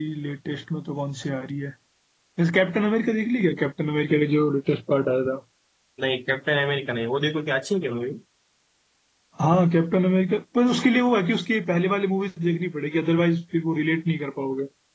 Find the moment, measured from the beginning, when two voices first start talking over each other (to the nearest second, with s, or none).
none